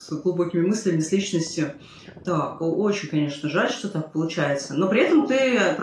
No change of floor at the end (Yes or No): Yes